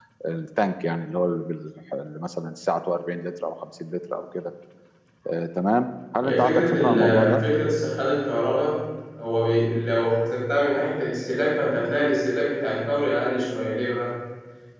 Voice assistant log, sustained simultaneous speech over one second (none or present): present